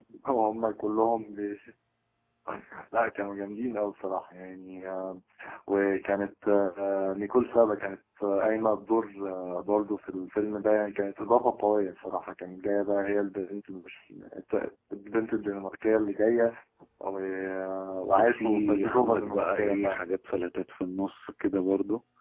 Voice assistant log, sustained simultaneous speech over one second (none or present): present